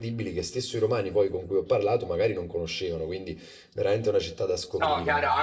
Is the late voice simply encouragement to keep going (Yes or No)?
No